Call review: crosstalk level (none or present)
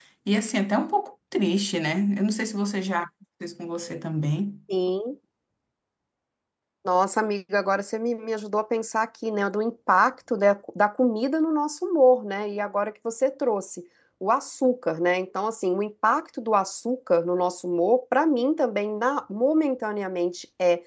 none